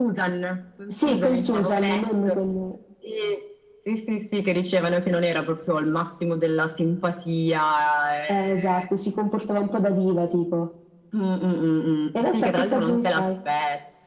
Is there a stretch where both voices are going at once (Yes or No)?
Yes